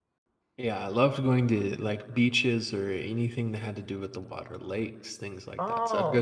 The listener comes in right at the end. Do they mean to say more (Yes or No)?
No